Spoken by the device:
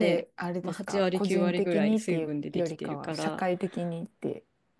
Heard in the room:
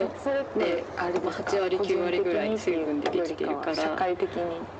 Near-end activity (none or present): none